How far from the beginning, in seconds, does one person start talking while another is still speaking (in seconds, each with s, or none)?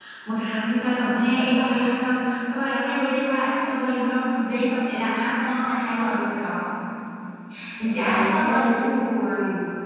8.0 s